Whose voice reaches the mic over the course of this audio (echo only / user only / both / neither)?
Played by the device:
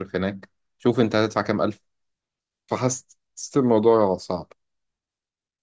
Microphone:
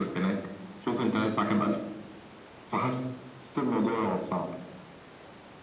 echo only